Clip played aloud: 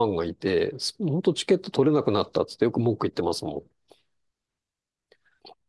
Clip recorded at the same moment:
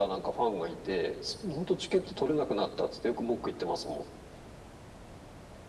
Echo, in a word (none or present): present